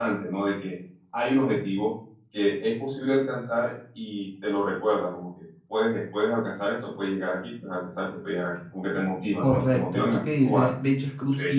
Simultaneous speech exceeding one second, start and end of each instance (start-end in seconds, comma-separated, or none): 9.4-10.7